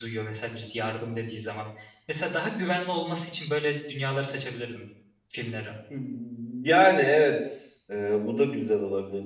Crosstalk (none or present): none